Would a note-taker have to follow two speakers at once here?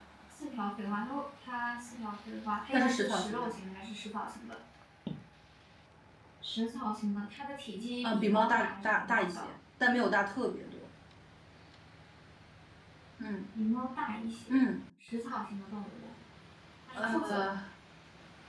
Yes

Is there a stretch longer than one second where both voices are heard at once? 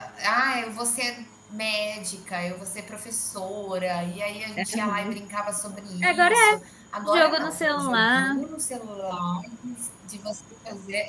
Yes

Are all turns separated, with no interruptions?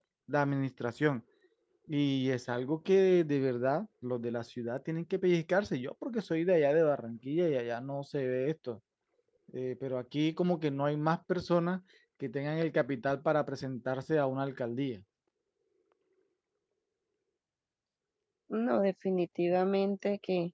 Yes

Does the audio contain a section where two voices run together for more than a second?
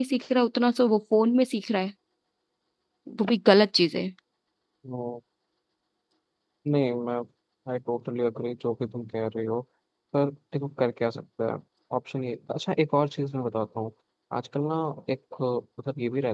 No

